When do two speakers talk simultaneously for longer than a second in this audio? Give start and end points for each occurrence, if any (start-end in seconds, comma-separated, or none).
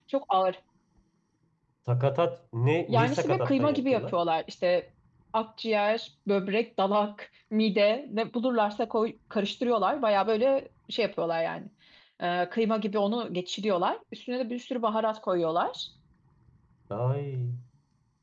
2.9-4.2